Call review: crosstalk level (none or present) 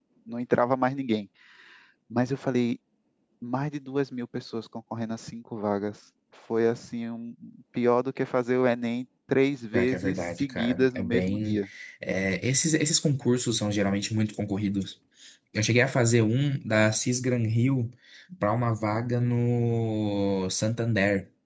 present